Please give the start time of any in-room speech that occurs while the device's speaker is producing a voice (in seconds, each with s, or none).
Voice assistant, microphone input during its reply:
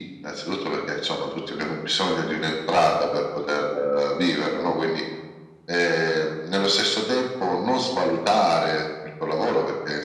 none